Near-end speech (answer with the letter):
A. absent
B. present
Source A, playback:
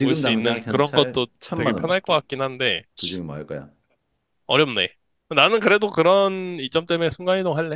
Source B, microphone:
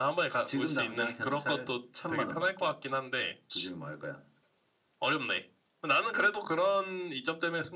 A